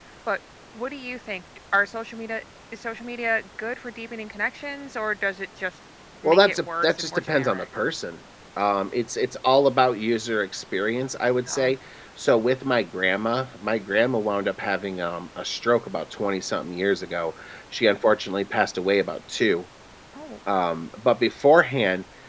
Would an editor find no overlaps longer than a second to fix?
No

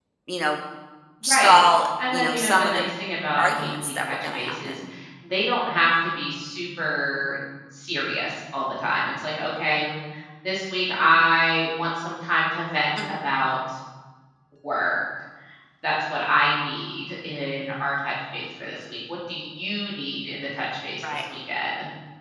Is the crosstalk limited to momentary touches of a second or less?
No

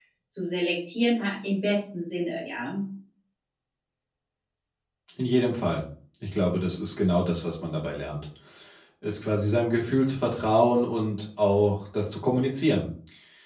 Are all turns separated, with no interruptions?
Yes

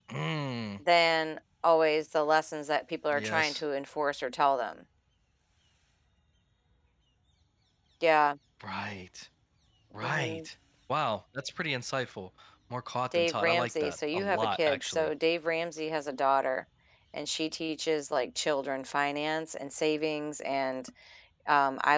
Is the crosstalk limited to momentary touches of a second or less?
No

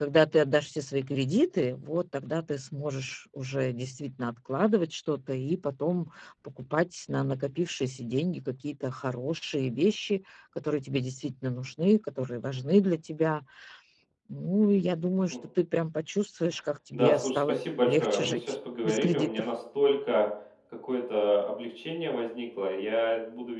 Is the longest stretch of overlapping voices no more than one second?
No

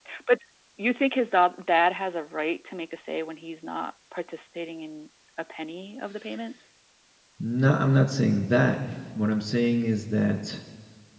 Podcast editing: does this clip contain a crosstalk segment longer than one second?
No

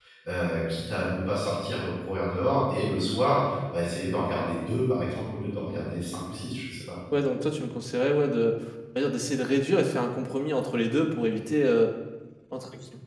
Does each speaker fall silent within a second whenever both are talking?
Yes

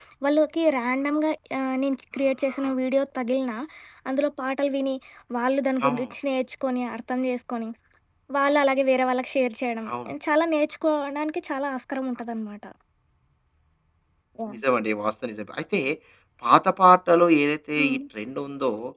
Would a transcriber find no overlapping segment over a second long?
Yes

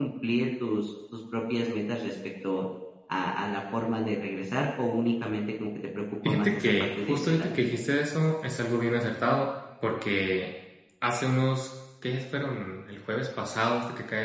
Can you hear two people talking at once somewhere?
Yes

